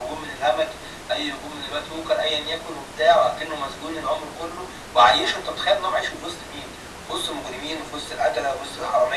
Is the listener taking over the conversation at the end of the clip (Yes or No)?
Yes